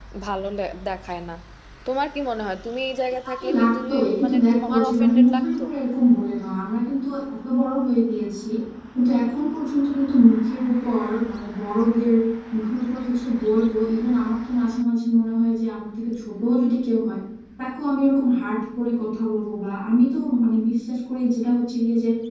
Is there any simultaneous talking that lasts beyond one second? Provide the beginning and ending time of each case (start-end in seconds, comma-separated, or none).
3.4-5.6